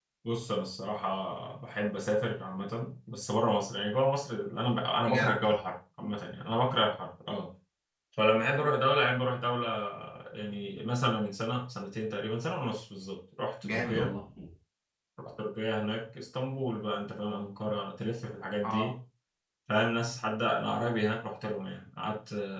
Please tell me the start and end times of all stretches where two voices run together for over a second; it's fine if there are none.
none

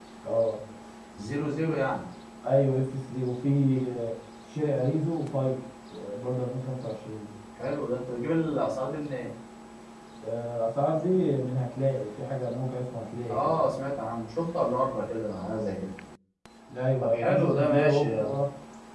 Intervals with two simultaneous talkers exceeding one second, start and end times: 17.0-18.4

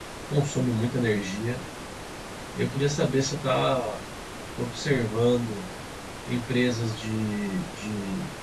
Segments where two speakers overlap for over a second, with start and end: none

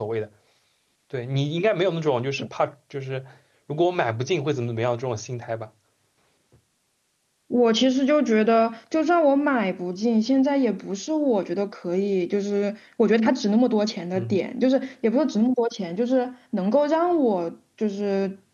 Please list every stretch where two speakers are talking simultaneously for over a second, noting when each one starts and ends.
none

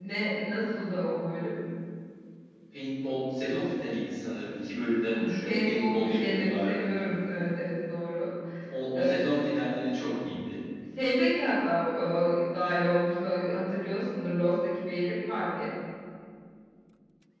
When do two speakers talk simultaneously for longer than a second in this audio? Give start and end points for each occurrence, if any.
5.1-6.7

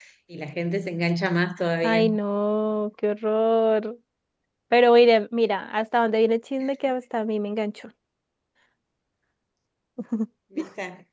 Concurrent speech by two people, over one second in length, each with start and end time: none

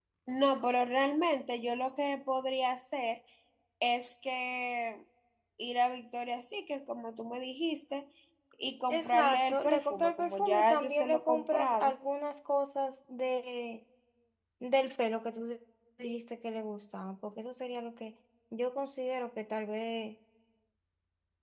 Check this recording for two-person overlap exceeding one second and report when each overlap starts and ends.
8.9-11.9

